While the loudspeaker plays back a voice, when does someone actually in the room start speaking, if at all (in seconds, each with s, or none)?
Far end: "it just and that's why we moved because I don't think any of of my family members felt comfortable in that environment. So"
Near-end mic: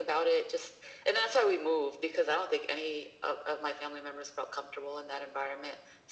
none